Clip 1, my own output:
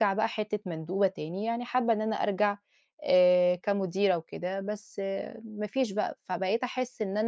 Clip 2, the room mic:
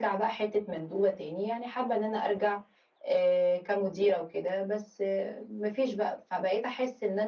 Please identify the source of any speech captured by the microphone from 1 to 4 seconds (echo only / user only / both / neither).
echo only